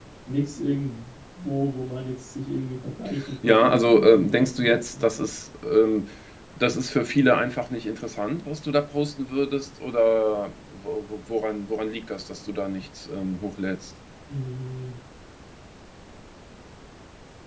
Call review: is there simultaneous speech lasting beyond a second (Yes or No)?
Yes